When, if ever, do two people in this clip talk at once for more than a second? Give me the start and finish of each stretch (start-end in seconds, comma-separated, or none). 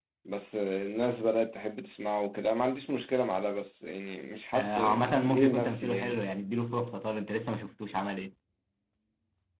4.5-6.2